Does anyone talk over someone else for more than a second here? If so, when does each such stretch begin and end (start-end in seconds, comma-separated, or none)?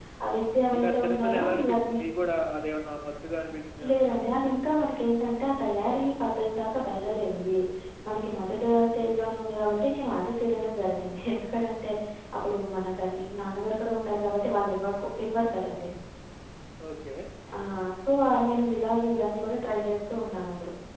0.7-2.0